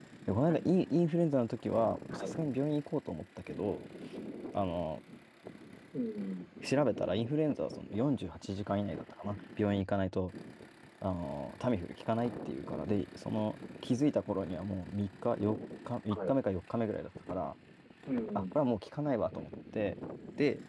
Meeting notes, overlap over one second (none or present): none